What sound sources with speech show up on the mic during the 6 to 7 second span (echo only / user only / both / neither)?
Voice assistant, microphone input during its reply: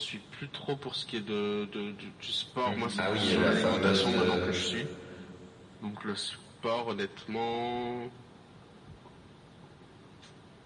echo only